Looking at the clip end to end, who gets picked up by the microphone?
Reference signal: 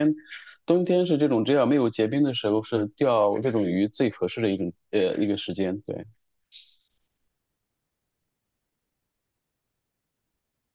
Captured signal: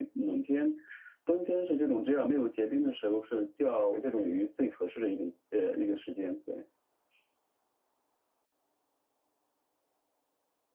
echo only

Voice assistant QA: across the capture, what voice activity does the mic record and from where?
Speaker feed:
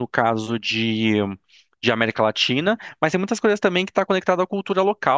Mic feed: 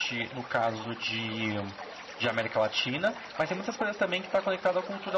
echo only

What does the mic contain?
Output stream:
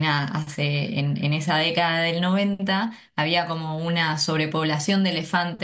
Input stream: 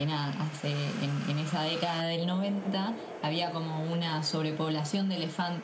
echo only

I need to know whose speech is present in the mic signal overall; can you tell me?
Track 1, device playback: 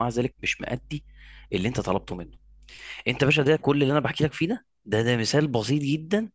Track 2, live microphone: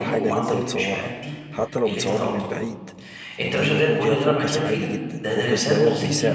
both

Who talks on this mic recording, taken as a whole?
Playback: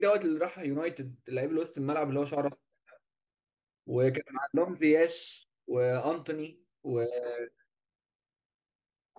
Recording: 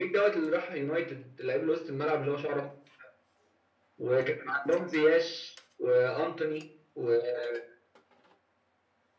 echo only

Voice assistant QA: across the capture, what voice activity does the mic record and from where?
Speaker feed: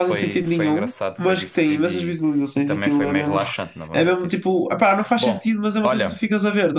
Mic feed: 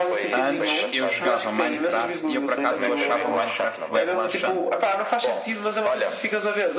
both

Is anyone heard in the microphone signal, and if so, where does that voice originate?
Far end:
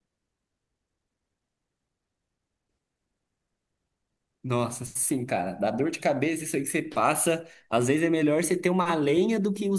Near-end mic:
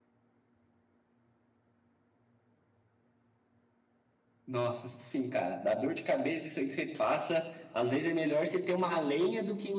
echo only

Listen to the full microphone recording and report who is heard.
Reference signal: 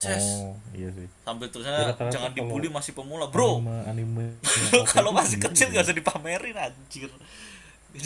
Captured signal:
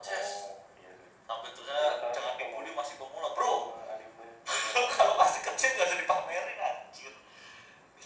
echo only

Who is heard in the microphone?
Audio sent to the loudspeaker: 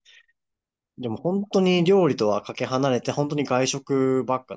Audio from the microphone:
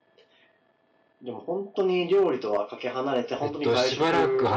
both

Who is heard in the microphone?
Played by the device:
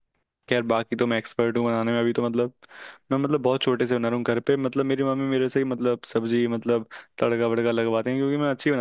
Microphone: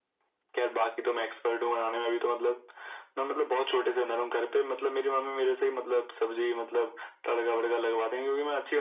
echo only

